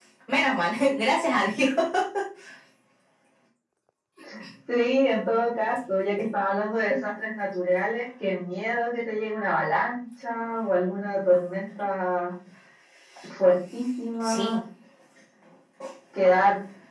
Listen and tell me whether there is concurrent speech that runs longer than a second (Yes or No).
No